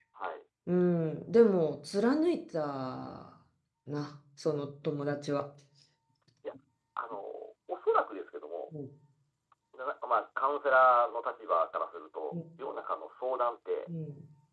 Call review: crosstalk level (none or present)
none